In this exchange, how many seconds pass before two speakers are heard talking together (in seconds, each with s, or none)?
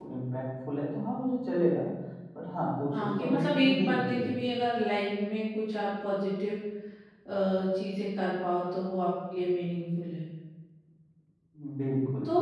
2.9 s